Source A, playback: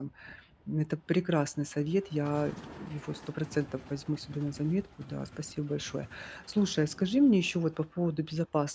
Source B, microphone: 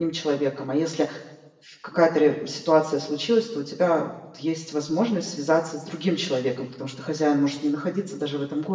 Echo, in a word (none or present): none